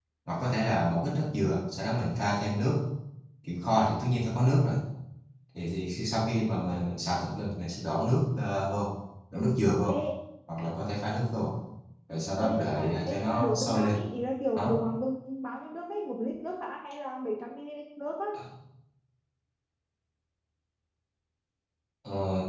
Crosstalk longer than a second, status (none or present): present